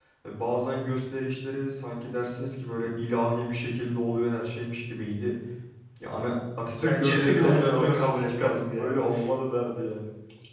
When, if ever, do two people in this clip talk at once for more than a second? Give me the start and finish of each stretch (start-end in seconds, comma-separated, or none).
6.7-9.0